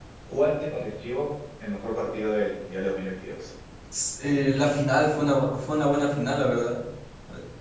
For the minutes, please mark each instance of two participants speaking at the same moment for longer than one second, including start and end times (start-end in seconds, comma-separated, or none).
none